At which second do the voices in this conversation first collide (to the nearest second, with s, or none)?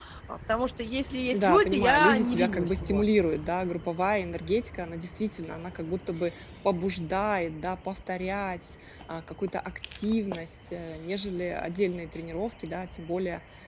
1 s